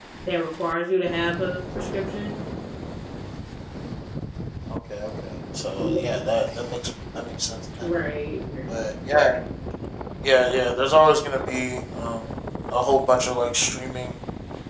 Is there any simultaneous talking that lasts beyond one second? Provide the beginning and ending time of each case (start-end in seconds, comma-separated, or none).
none